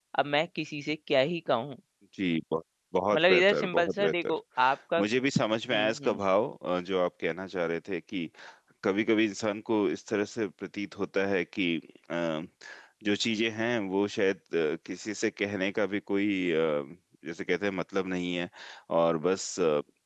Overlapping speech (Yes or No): Yes